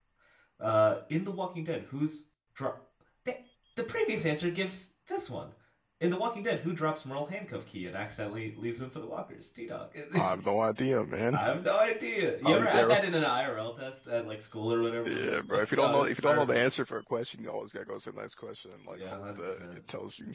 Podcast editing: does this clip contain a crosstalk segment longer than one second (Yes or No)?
Yes